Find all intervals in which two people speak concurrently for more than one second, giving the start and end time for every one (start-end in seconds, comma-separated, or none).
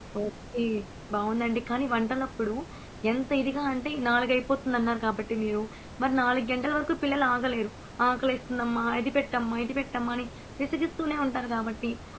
none